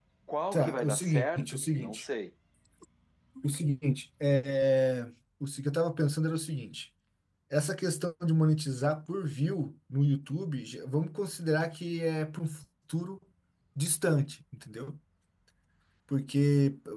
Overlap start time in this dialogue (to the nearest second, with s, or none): 1 s